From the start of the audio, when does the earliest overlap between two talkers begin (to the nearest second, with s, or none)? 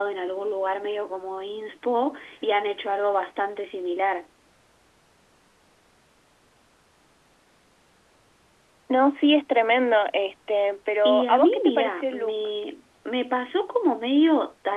11 s